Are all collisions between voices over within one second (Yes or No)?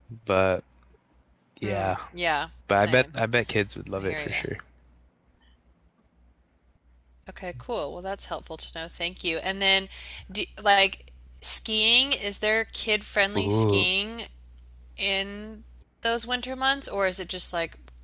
Yes